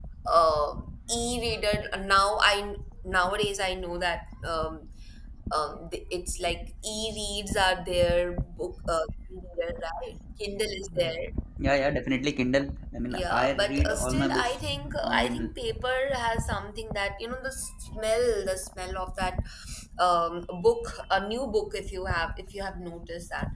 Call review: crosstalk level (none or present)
present